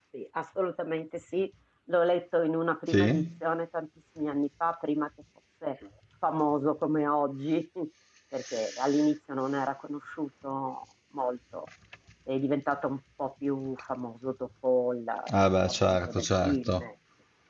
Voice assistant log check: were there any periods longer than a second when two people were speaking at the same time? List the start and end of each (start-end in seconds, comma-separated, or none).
15.3-16.8